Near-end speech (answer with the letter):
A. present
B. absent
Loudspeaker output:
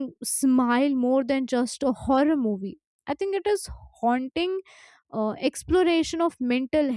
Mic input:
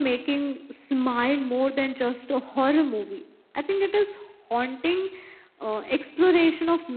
B